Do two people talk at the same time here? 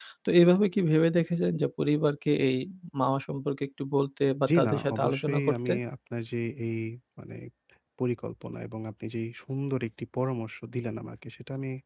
Yes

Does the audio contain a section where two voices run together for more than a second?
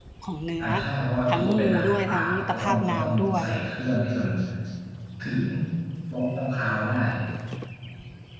Yes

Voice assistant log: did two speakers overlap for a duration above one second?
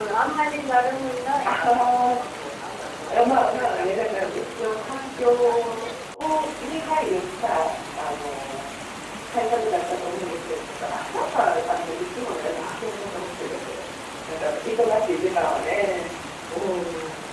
Yes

